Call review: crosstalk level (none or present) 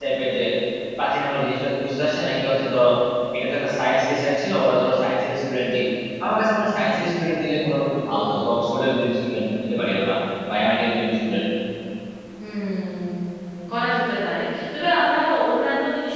none